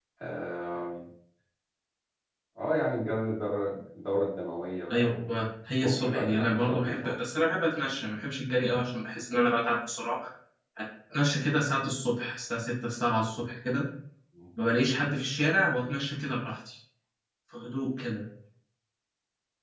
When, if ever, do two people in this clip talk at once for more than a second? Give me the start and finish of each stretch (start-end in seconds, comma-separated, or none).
5.8-7.1